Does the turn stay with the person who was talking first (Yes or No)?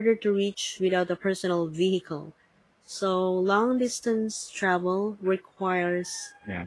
Yes